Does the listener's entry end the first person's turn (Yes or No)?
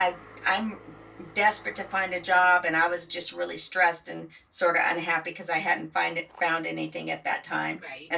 No